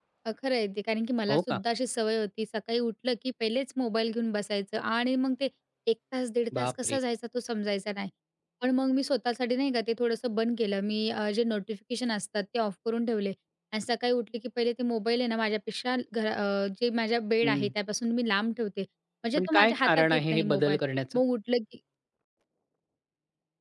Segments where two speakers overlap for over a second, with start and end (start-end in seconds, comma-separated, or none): 19.4-20.8